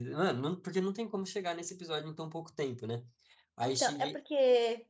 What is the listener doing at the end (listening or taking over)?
taking over